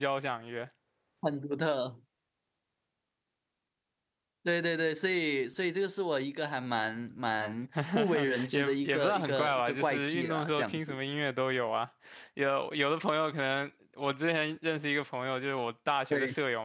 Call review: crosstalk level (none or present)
present